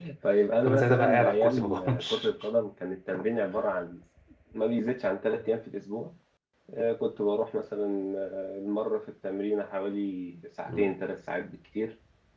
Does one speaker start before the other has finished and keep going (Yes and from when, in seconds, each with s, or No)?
Yes, from 0.6 s